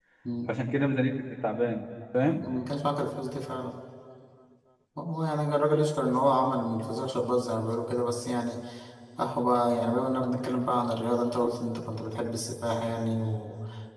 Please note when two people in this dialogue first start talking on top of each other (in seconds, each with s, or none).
none